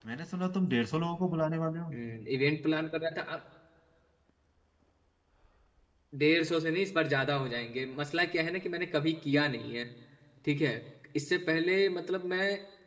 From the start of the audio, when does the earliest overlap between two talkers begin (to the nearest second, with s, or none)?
none